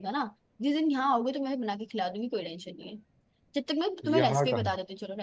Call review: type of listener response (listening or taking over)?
listening